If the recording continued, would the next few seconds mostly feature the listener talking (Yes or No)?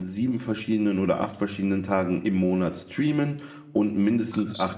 No